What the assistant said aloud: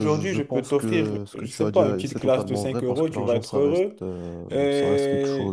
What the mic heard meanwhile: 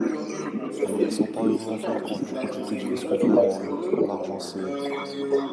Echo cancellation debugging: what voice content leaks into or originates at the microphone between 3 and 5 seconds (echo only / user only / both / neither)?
both